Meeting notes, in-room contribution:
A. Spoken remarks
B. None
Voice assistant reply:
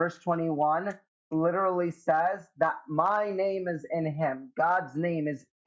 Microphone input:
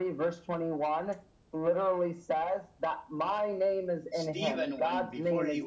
A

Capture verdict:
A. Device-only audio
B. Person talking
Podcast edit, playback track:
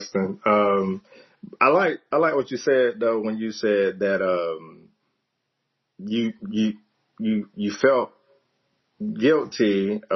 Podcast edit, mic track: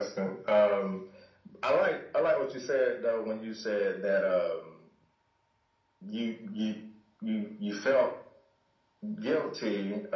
A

